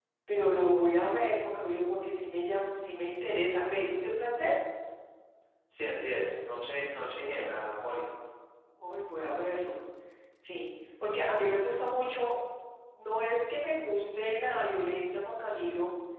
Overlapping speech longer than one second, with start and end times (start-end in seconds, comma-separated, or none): none